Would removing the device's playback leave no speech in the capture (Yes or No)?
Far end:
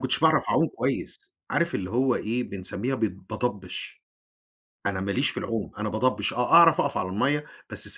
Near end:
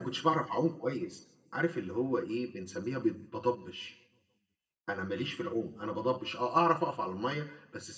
Yes